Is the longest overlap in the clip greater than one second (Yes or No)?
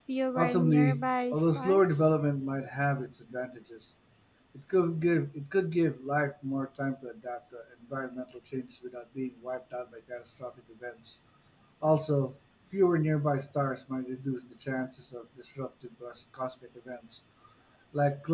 Yes